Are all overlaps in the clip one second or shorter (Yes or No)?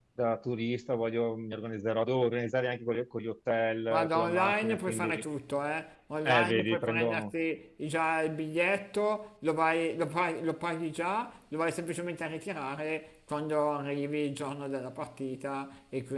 No